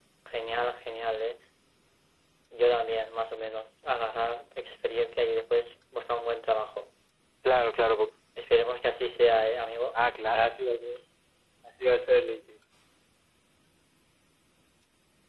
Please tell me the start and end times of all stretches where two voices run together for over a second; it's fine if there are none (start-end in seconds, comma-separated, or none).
none